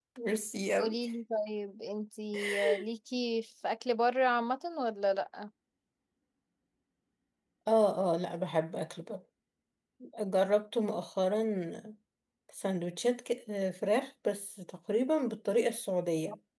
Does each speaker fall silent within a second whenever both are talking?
Yes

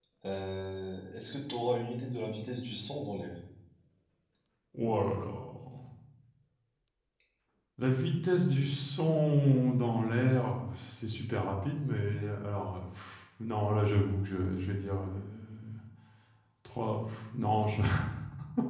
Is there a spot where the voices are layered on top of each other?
No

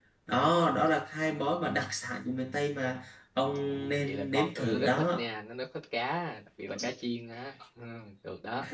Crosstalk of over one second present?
Yes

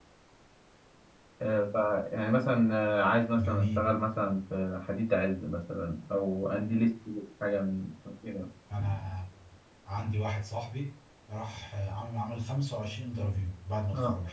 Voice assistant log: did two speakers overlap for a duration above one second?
No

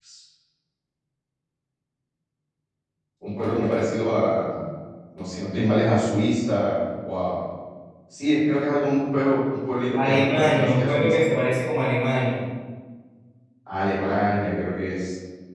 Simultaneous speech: Yes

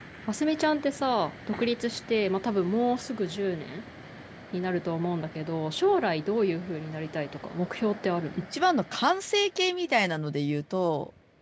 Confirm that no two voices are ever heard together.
Yes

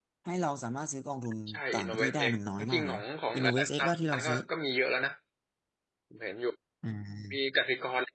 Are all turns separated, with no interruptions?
No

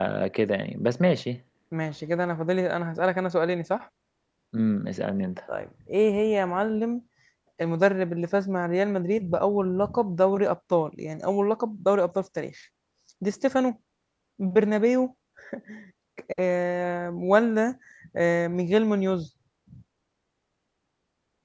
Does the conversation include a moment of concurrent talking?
No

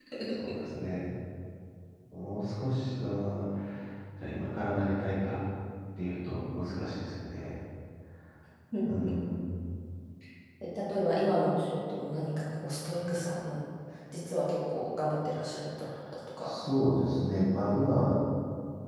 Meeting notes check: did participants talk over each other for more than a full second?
No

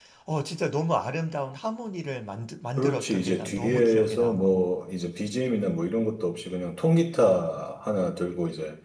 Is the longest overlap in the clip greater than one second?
Yes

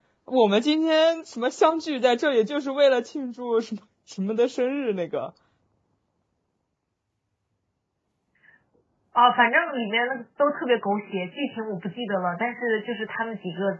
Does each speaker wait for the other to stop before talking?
Yes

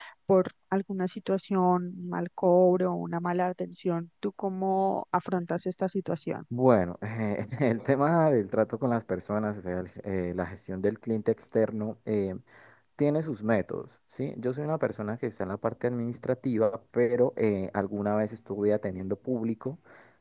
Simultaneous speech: No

